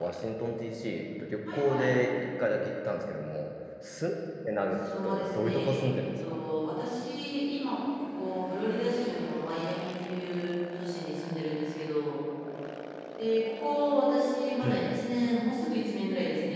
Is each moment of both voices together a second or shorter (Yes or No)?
No